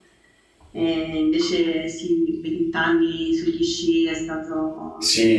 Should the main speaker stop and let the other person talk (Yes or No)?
Yes